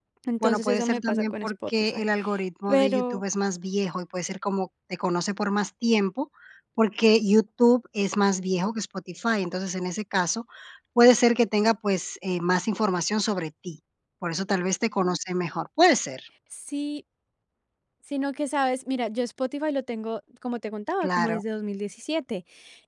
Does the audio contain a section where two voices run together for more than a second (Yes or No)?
Yes